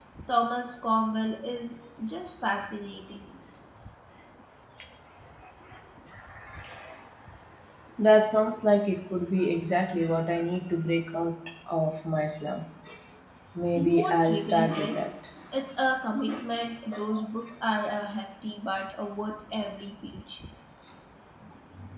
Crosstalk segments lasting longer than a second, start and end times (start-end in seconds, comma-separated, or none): 13.8-15.0